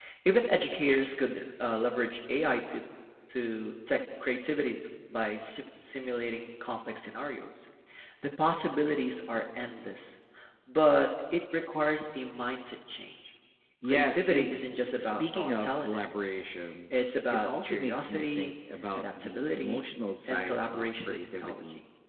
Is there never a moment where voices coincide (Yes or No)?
No